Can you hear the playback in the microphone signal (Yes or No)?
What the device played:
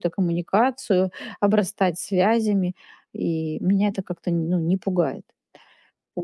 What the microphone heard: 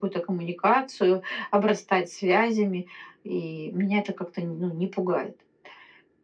Yes